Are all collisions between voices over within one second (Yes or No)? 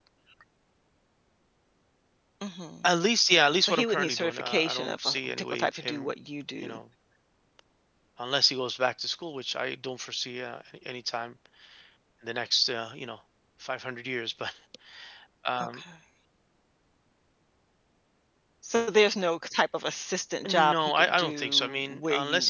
No